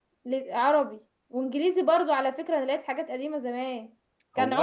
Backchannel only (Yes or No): Yes